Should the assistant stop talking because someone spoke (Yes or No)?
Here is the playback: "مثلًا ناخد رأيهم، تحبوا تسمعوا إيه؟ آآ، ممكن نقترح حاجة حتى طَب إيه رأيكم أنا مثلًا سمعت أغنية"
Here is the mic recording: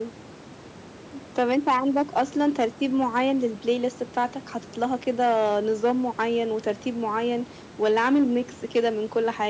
Yes